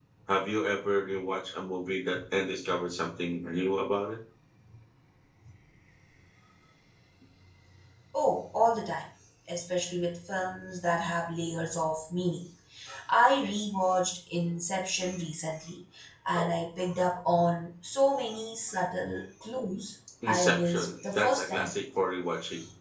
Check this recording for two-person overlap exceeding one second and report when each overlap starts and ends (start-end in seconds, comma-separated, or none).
20.2-21.7